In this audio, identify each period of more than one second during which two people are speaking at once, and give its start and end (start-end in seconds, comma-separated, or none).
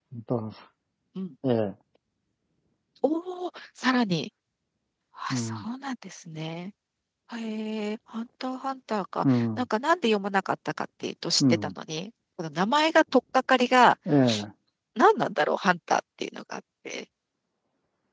none